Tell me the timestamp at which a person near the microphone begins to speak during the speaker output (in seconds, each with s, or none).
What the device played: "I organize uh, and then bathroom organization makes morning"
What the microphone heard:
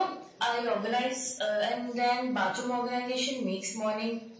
none